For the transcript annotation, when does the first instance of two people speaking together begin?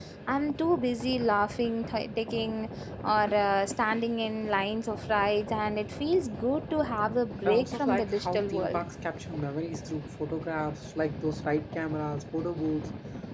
7.4 s

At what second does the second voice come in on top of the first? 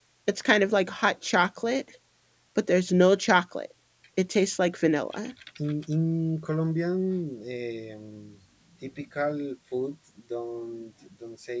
none

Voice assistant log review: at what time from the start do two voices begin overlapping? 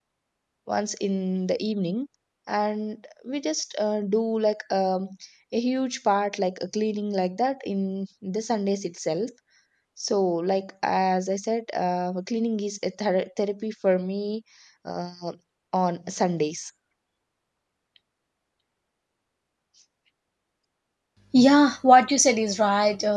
none

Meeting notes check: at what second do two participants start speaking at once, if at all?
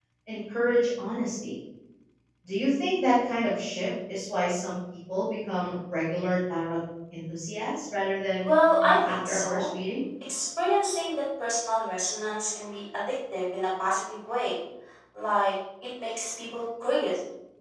8.4 s

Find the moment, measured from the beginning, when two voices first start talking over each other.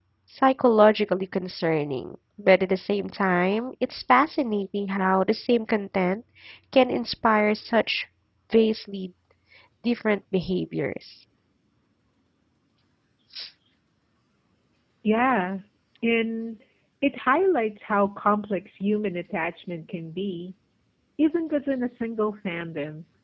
none

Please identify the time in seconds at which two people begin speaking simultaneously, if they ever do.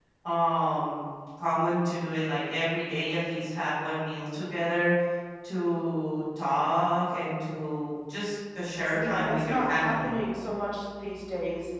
8.9 s

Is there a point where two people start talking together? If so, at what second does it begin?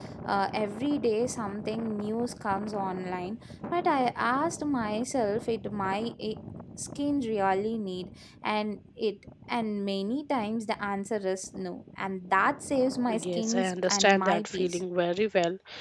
13.1 s

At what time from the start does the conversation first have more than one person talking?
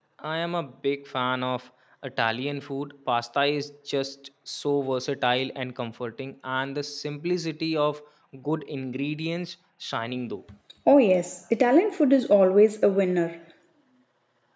none

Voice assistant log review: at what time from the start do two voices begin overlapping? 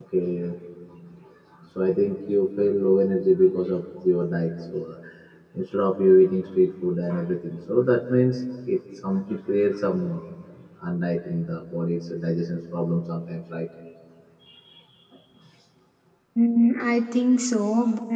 none

